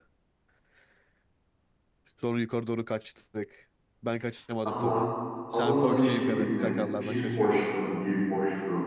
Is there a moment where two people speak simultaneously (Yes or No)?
Yes